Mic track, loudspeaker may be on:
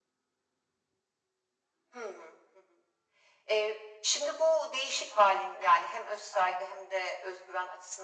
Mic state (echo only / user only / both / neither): echo only